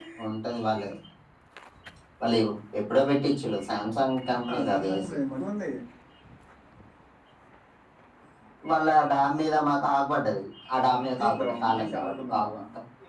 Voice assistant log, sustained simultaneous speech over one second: present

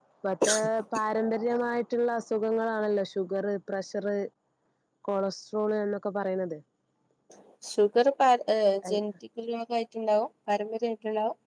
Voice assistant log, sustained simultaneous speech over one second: none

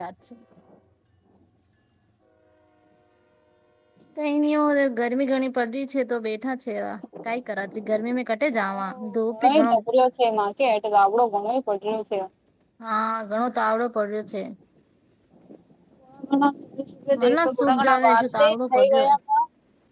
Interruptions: present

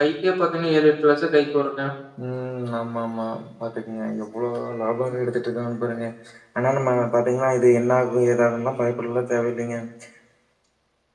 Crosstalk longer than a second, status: none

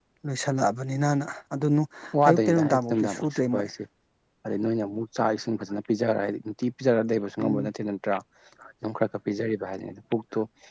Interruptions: present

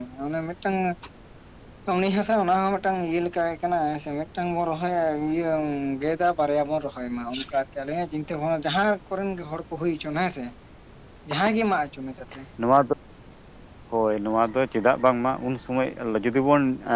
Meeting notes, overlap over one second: none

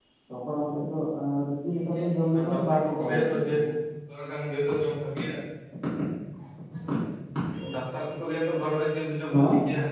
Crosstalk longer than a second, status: present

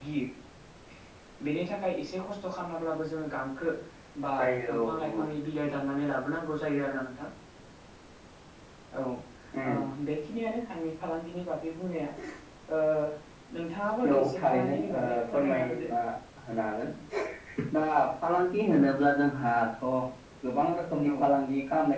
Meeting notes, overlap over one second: present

